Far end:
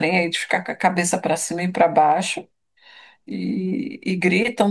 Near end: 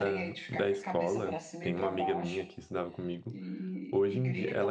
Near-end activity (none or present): present